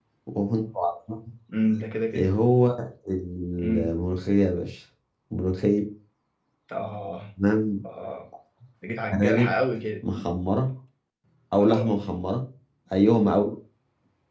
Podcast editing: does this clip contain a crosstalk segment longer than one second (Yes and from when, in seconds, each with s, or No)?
No